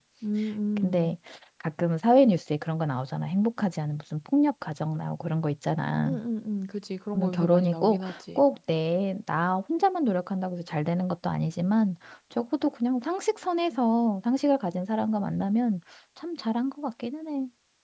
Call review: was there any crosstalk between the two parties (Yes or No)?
Yes